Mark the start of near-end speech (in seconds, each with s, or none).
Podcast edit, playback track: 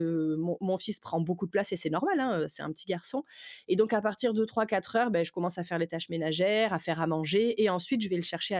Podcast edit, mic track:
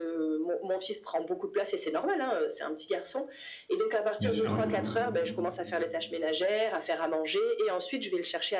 4.2 s